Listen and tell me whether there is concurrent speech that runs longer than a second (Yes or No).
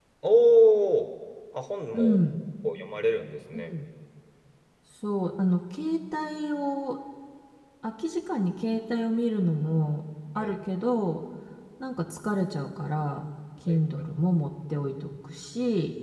No